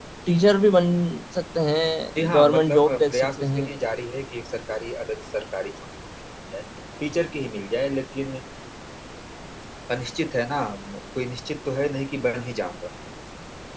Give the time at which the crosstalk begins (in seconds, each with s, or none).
2.2 s